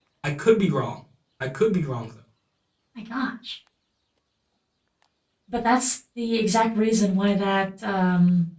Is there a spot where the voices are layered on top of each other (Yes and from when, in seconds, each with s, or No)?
No